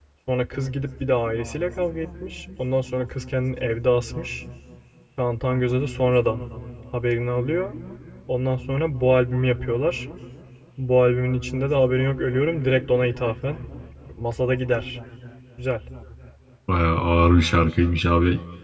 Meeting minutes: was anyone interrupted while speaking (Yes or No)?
No